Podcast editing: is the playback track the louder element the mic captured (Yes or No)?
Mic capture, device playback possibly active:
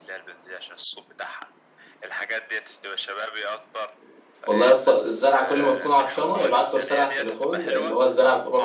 No